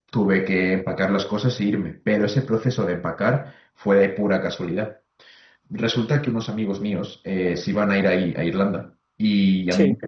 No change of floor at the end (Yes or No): Yes